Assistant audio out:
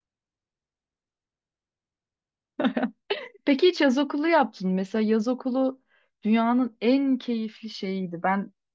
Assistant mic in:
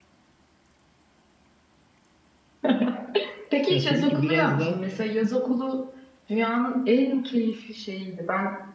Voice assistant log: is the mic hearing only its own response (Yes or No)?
No